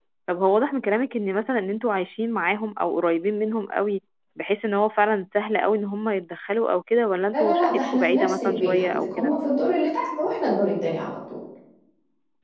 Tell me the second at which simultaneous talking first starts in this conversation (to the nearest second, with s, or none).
7 s